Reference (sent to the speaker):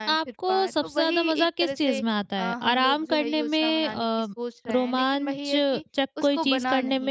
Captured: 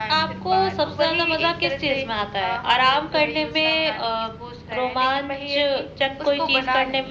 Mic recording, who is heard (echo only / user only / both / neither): echo only